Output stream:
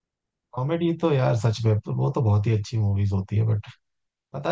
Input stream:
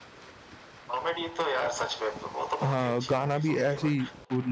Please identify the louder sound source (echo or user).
user